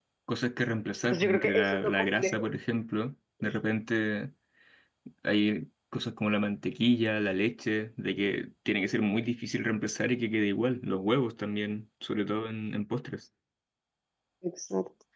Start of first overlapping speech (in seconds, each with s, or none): 1.0 s